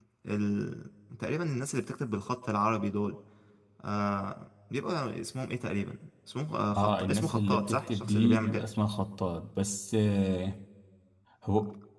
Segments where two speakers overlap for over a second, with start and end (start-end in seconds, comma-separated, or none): 6.8-8.6